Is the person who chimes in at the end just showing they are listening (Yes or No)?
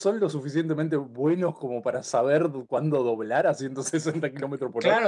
No